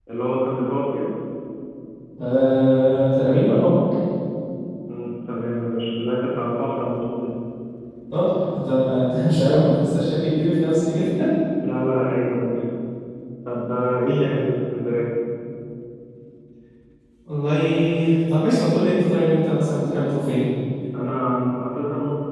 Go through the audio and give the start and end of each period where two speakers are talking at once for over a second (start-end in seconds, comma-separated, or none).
none